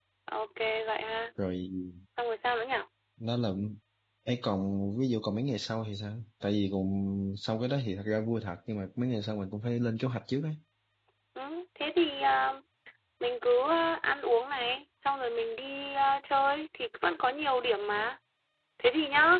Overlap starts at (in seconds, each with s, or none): none